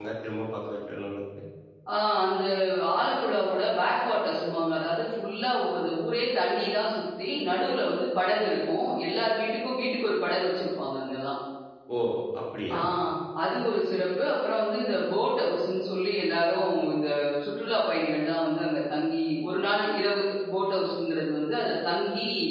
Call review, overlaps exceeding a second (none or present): none